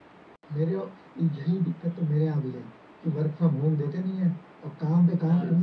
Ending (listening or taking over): listening